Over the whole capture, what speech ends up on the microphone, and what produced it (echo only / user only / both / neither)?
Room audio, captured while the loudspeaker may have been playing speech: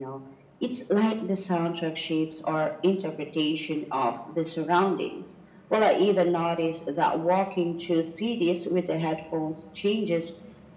echo only